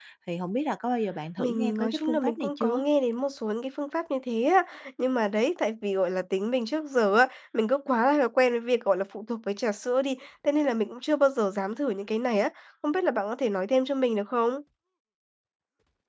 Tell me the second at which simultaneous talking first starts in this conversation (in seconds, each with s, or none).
1.4 s